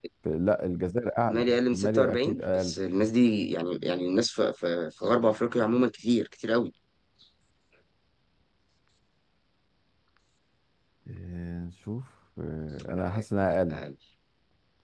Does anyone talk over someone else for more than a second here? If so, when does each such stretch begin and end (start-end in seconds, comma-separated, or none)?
1.3-2.8